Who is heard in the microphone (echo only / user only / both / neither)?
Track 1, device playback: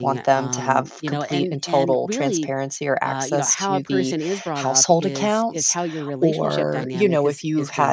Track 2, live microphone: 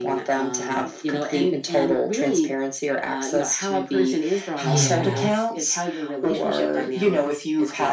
both